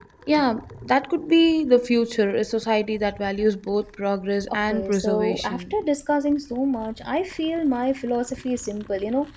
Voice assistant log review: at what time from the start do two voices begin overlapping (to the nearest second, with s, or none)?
4 s